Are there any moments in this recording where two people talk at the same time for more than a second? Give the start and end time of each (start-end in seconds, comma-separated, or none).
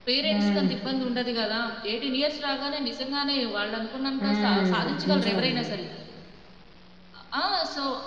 4.2-5.7